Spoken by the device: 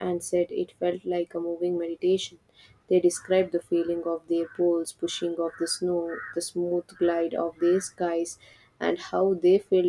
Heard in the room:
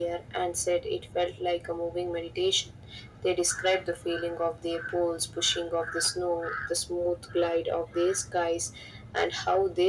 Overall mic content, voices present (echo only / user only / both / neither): echo only